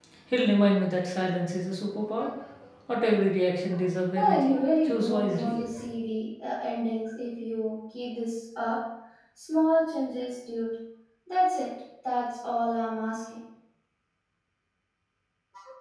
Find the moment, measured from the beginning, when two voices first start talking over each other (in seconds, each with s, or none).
4.2 s